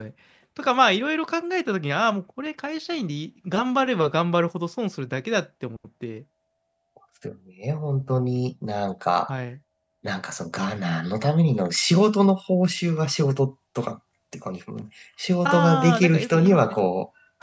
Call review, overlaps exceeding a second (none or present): present